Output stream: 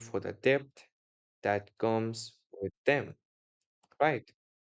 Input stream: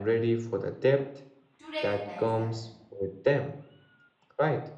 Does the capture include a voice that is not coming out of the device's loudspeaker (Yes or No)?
Yes